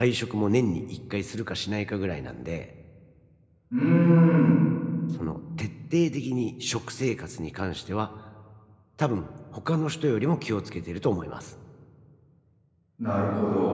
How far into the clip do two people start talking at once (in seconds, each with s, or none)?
none